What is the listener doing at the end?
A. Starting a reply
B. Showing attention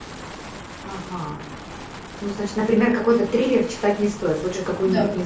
A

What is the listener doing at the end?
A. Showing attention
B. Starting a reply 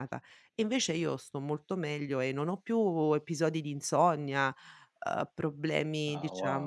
A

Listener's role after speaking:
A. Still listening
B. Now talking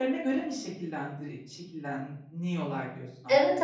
B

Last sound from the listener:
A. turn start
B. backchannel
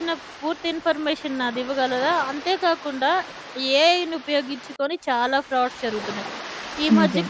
B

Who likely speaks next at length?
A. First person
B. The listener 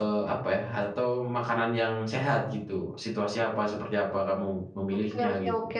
B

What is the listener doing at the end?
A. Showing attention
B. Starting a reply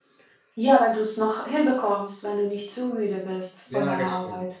B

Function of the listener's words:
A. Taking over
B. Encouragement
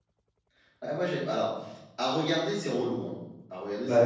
A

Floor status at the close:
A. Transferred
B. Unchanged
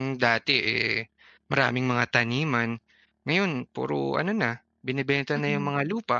B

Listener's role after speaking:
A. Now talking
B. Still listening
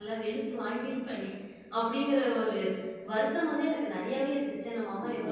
A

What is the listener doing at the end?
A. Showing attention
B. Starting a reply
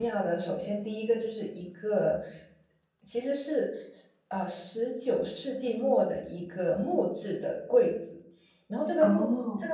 A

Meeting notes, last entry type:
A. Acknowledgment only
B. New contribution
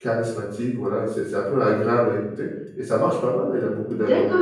B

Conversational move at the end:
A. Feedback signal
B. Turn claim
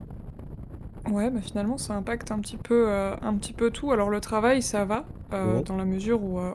A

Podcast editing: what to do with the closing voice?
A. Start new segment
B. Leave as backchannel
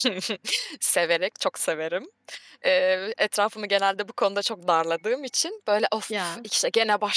B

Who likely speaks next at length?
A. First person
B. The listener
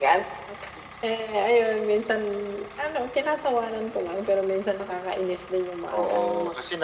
B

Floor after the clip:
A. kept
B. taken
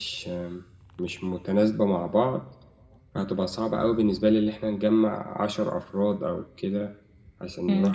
B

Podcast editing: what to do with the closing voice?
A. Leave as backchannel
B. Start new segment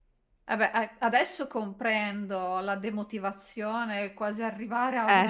A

